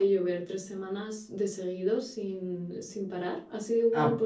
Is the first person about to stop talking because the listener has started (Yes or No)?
Yes